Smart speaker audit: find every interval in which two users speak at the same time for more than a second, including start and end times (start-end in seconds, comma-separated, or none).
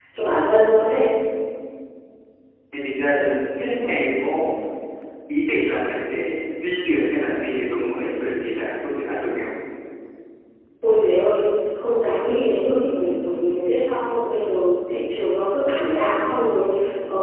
none